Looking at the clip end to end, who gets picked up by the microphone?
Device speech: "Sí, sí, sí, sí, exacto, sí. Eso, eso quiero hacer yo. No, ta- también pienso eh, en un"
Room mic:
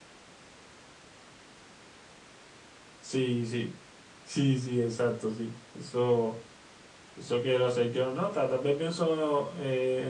echo only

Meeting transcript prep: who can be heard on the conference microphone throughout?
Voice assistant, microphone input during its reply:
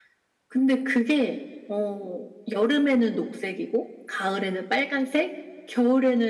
echo only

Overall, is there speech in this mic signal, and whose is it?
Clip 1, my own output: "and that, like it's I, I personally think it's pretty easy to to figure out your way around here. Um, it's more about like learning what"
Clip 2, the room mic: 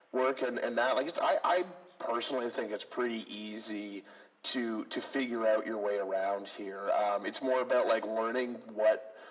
echo only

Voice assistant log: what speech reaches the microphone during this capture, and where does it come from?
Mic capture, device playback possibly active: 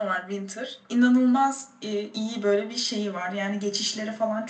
echo only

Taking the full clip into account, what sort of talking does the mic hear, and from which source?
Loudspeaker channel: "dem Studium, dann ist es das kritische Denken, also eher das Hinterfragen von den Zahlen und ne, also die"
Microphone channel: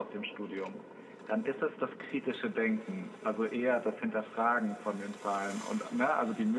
echo only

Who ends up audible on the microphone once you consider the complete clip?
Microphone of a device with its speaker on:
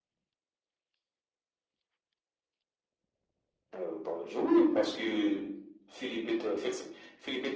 echo only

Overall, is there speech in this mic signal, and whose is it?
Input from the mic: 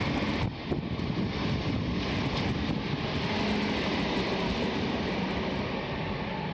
neither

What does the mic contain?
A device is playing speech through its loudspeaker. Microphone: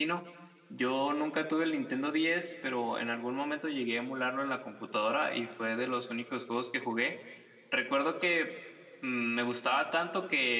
user only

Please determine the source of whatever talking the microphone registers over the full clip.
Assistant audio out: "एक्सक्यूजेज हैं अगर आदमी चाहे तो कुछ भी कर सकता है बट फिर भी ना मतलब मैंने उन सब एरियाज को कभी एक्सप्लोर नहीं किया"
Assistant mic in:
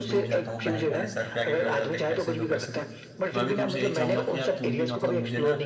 both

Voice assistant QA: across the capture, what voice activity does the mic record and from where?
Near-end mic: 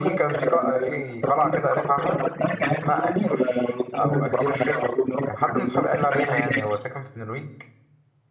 both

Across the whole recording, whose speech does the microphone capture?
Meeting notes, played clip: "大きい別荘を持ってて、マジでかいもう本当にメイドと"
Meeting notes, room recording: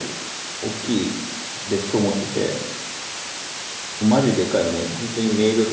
echo only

